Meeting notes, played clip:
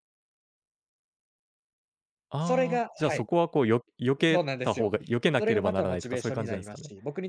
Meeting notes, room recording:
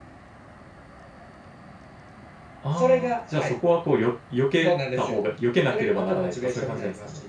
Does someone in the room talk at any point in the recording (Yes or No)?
No